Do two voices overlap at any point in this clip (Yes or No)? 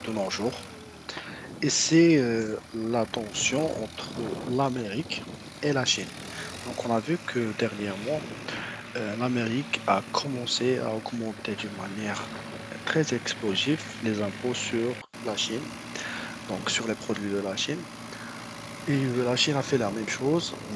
No